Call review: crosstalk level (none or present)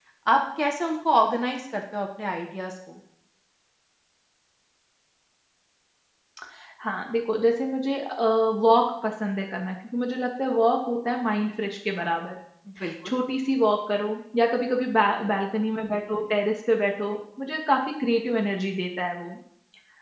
none